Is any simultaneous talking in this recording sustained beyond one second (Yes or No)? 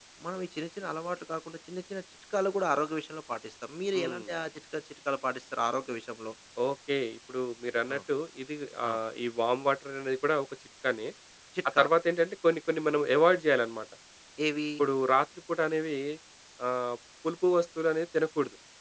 No